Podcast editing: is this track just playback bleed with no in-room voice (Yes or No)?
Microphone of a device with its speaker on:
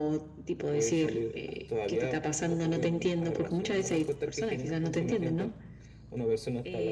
Yes